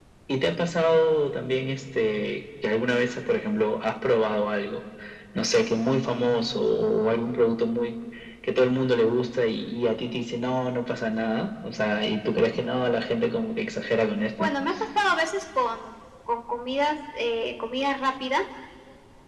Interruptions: none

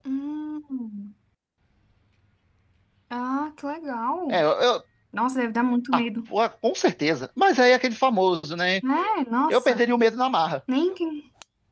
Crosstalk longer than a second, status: none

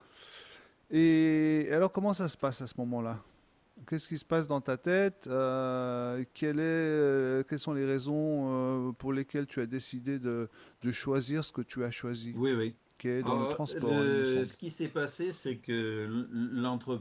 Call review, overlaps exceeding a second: present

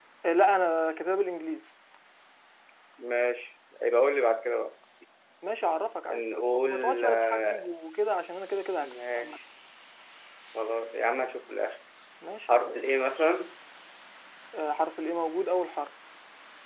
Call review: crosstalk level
present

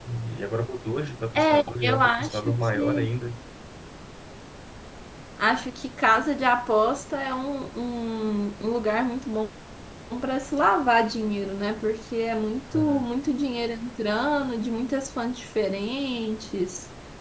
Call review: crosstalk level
present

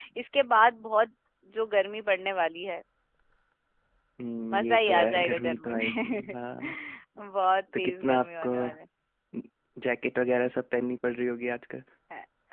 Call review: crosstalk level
present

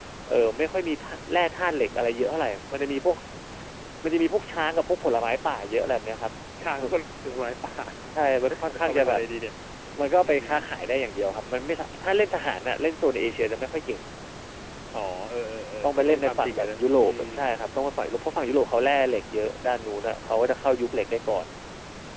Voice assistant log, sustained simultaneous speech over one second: present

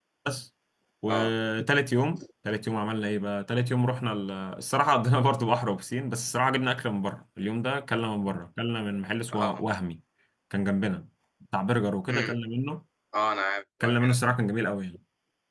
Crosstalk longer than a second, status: none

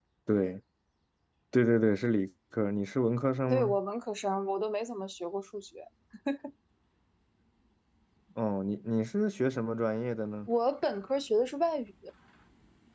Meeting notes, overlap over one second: none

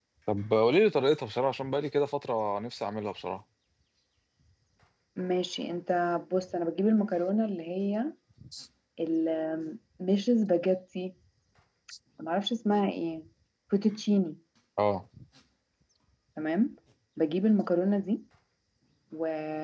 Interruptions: none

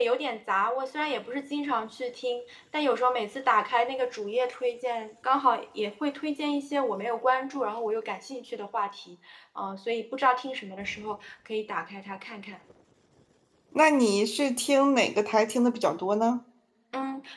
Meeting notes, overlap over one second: none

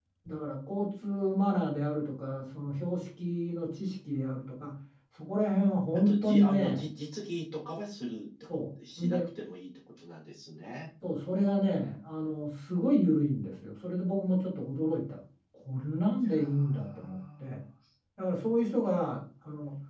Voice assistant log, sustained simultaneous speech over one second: present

